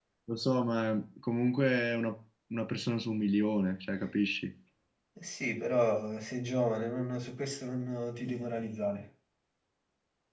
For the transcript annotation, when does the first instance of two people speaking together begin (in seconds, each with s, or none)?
none